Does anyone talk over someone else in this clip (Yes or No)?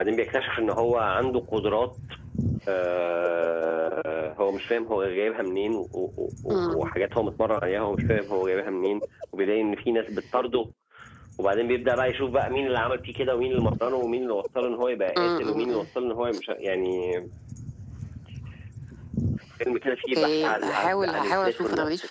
Yes